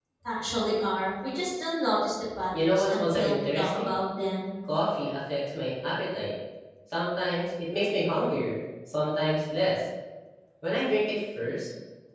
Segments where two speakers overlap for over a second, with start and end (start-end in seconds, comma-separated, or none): 2.6-4.0